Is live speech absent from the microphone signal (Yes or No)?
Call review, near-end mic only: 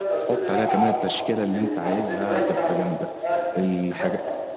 No